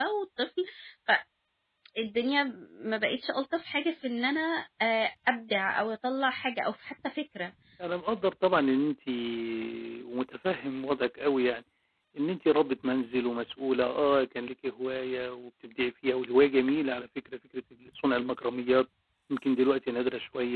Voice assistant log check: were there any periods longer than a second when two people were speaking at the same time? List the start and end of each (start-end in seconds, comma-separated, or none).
none